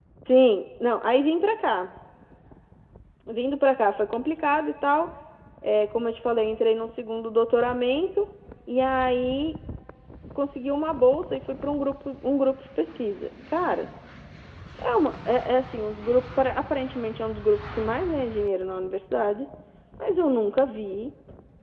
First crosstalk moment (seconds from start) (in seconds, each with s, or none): none